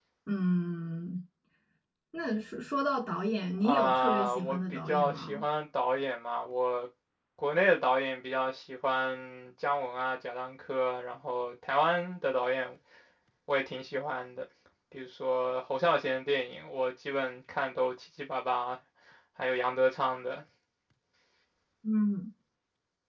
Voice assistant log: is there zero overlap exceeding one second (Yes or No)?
No